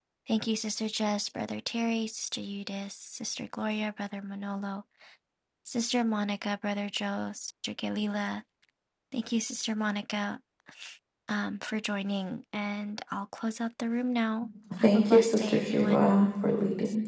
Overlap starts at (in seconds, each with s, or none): 14.7 s